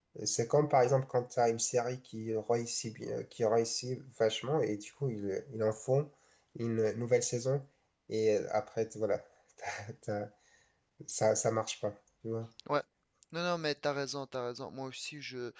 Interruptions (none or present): none